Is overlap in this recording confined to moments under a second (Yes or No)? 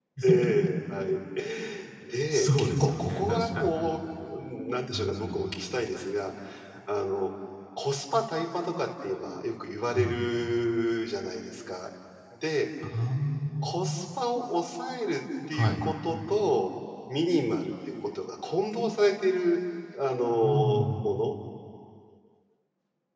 No